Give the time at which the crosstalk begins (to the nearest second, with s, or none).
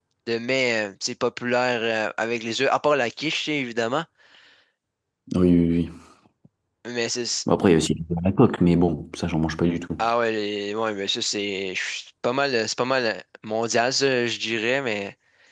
none